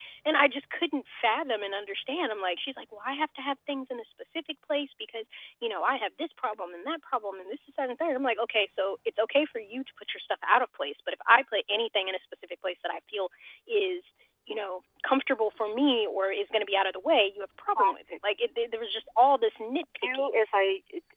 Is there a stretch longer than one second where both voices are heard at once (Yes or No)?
No